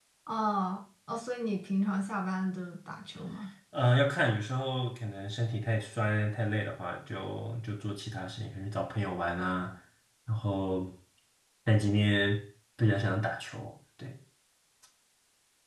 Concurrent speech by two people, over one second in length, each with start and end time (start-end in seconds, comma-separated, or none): none